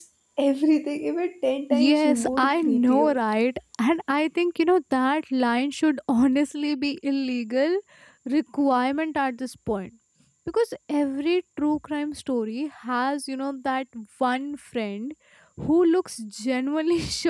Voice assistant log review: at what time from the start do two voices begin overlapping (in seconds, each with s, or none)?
1.7 s